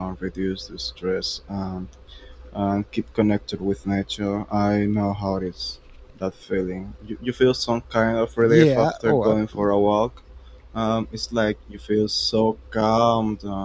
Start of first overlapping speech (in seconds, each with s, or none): 8.4 s